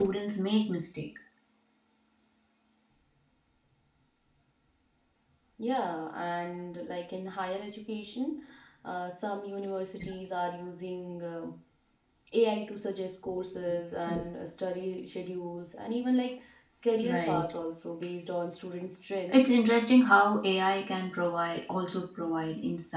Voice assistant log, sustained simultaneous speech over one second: none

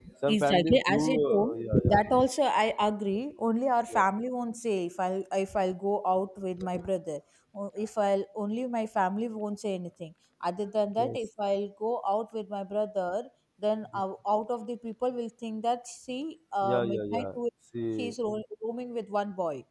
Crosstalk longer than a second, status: present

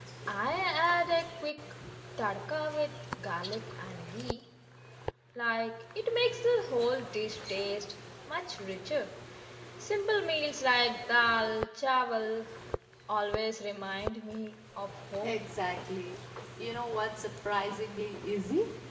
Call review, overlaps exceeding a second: none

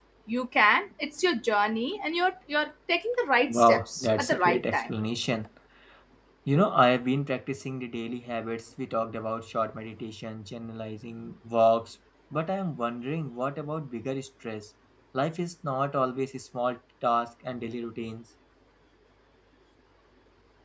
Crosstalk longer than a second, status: present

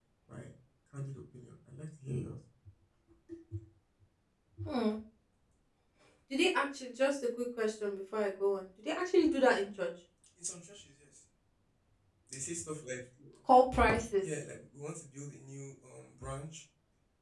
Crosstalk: none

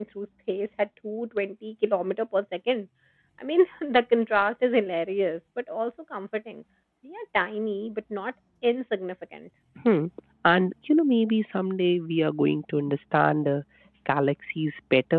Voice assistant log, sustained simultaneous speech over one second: none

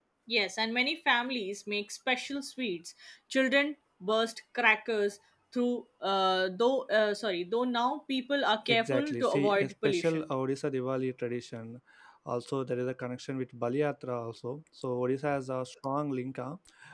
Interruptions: present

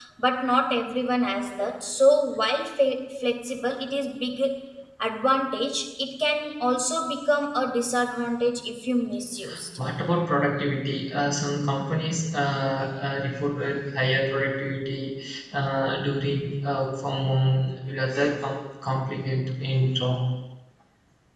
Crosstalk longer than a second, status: none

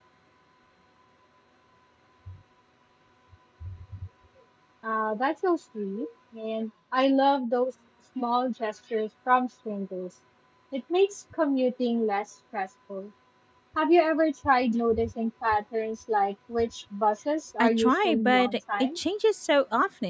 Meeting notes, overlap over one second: present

